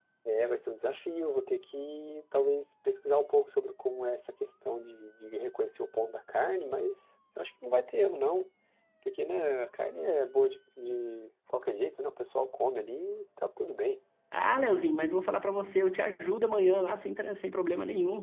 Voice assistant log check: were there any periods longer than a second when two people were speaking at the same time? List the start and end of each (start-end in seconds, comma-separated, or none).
none